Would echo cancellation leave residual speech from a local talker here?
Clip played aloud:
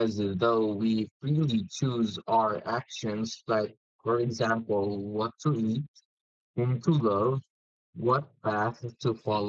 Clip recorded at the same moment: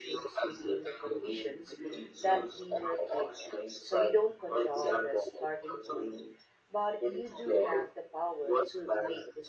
Yes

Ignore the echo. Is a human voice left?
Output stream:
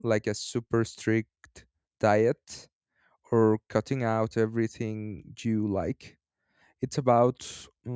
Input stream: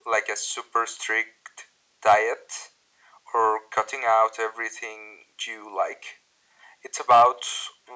No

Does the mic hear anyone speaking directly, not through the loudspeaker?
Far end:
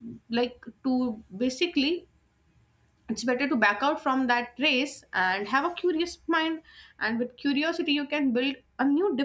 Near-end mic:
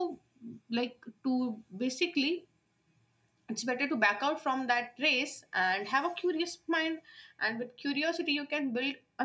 No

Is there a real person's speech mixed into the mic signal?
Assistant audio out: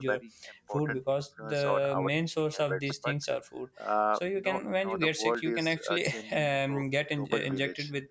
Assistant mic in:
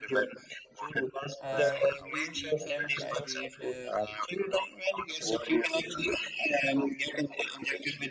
Yes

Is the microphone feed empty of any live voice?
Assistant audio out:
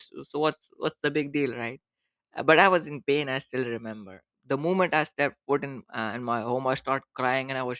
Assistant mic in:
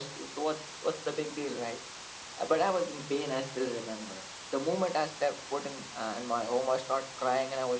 Yes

